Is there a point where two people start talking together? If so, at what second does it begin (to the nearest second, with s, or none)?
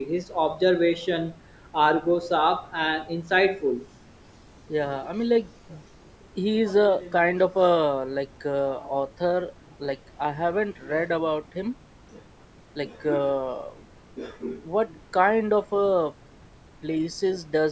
none